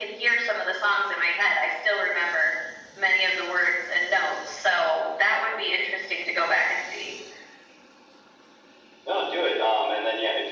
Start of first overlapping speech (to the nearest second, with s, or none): none